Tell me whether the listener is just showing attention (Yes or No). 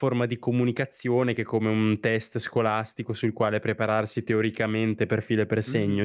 No